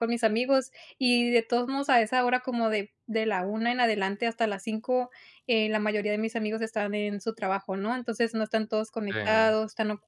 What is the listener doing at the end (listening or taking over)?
listening